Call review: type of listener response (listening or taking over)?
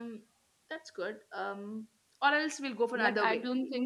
taking over